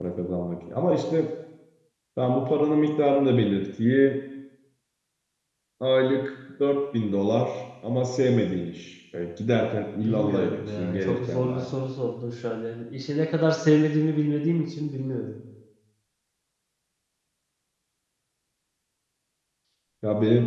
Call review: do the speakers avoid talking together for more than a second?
No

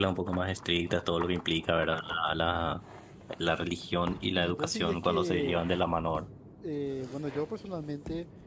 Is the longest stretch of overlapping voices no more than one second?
No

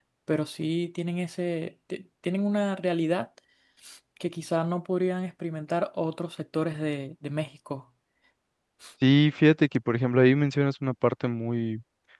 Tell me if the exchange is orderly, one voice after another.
Yes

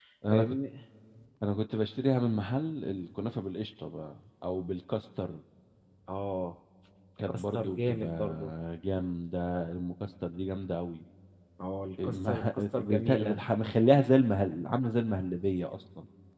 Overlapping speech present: Yes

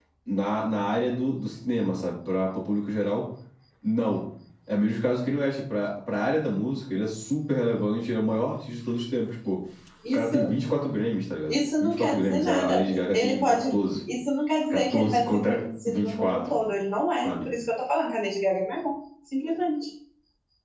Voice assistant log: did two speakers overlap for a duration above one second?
Yes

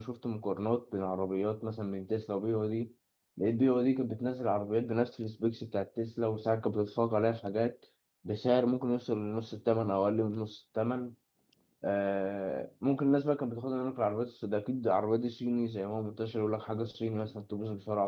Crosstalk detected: No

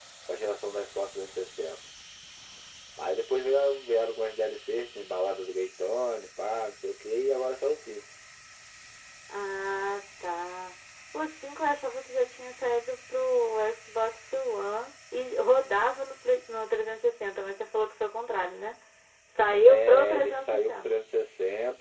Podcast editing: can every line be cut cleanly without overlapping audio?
No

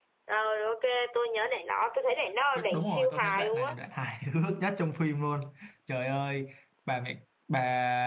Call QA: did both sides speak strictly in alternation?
No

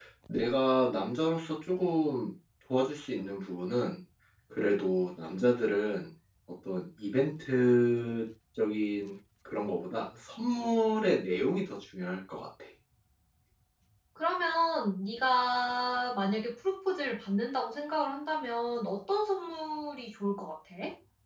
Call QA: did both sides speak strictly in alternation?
Yes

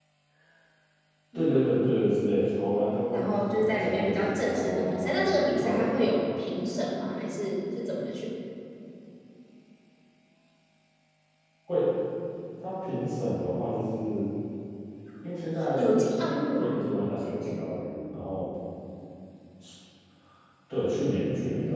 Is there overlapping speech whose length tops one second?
Yes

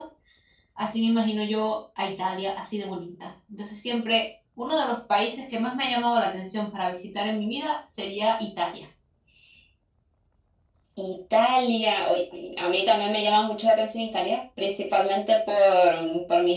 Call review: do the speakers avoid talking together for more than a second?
Yes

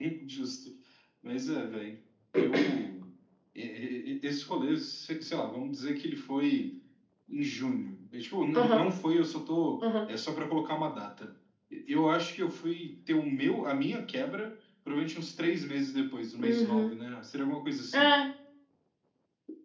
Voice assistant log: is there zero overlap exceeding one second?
Yes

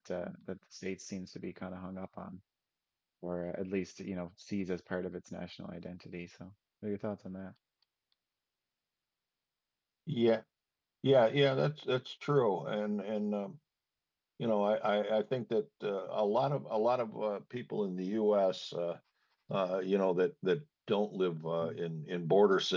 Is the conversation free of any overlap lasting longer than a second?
Yes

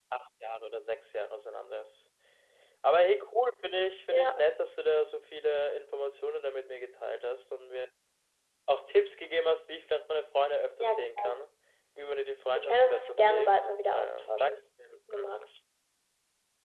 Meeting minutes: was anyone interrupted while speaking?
Yes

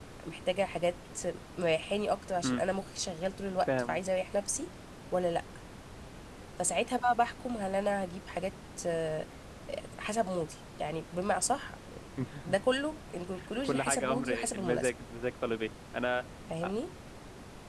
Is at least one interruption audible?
Yes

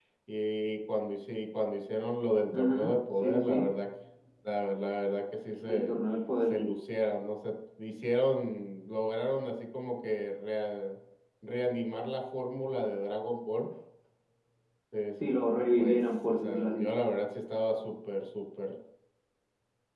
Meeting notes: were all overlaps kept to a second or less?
No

